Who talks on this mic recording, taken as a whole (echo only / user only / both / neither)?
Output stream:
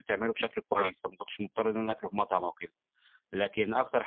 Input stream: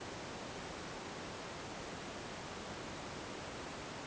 neither